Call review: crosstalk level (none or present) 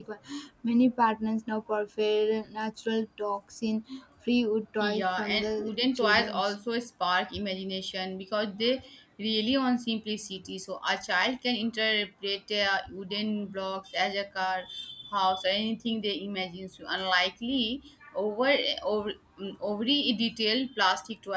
present